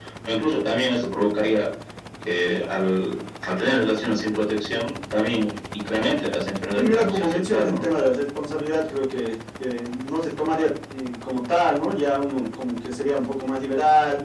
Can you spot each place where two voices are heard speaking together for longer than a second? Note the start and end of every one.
6.8-8.0

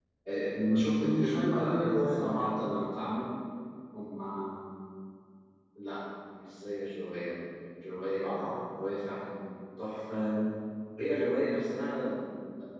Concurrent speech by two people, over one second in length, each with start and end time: 1.0-2.5

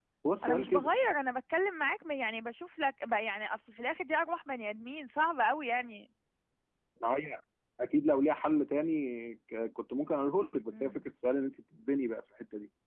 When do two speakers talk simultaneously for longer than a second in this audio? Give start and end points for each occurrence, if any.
none

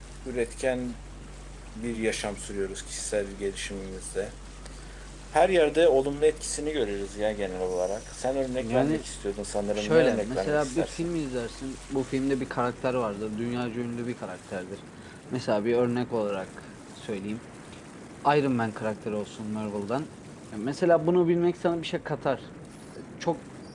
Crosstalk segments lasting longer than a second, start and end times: 9.8-11.1

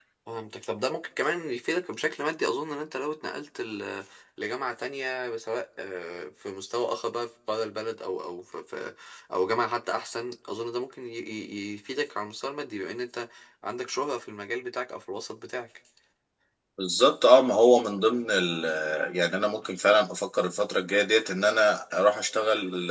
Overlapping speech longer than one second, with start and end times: none

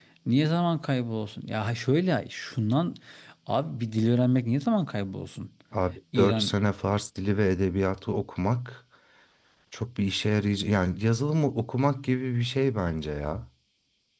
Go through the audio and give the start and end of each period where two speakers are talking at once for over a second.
none

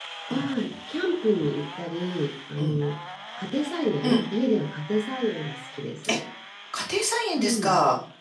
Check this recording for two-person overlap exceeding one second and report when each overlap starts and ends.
none

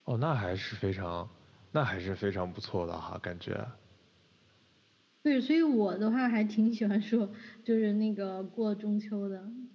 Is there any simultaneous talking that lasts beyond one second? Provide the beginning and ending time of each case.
none

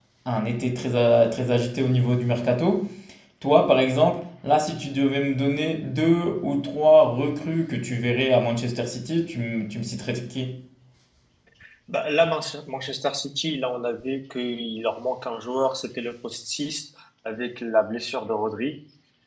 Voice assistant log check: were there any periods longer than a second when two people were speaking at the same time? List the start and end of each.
none

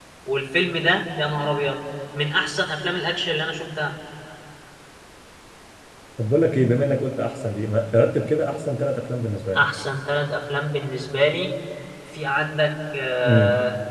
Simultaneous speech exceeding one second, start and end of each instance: none

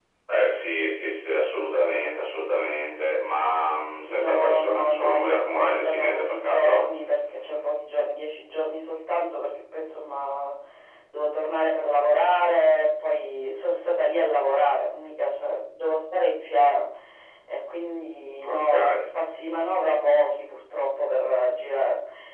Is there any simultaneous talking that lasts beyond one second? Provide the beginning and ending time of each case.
4.1-6.9

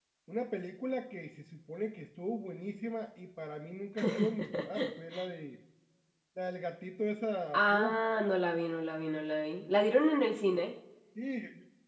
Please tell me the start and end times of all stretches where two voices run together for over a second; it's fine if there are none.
none

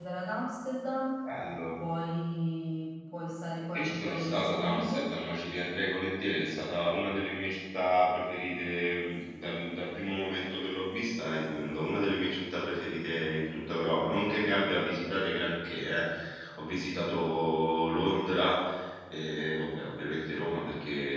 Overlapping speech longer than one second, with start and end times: 3.7-5.0

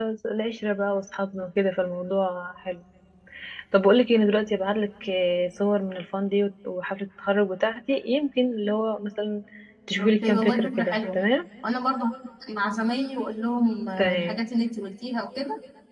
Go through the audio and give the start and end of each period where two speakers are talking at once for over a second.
10.0-11.2

